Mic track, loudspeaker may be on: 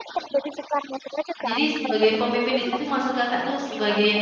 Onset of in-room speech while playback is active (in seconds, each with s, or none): 1.5 s